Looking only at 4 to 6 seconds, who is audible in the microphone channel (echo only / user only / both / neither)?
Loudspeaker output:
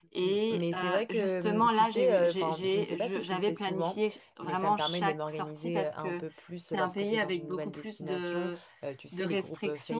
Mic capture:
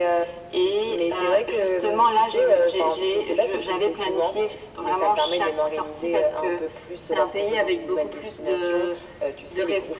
echo only